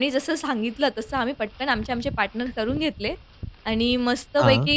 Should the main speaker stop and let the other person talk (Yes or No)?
No